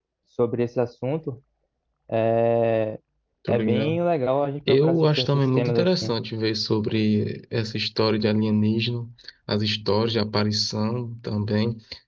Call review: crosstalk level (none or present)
present